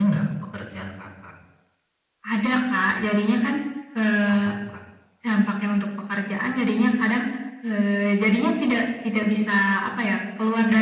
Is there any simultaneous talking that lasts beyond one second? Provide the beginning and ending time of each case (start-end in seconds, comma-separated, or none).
none